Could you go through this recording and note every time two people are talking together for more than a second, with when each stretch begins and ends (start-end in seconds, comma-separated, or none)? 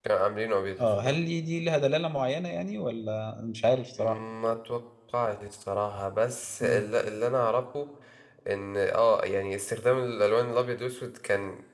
none